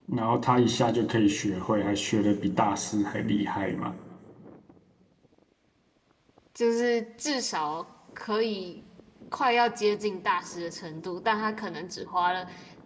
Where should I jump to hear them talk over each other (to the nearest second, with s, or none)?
none